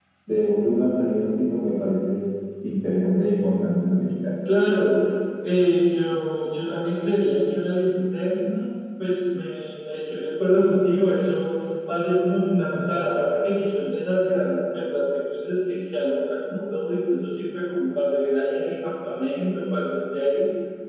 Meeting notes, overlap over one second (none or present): none